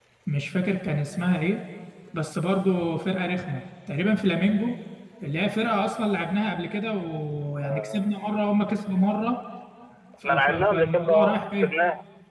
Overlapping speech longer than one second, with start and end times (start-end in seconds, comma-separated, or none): 10.2-11.7